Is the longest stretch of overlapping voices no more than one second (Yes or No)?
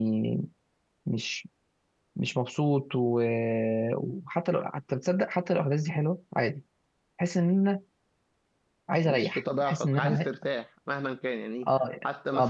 No